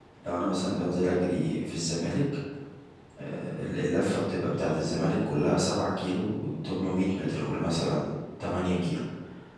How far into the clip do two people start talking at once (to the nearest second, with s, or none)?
none